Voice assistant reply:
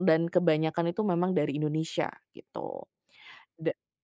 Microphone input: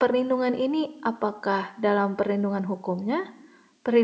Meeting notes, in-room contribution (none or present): present